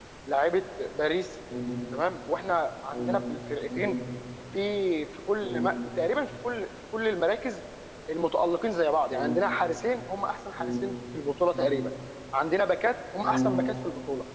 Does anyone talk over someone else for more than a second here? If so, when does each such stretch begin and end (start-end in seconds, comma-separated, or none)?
none